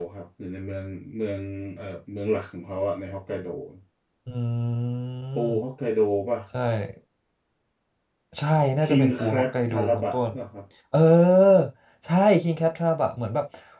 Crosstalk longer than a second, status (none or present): present